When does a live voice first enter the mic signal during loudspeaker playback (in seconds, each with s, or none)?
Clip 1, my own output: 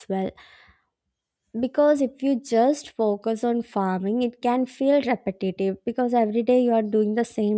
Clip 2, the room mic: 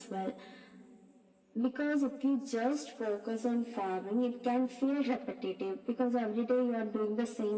none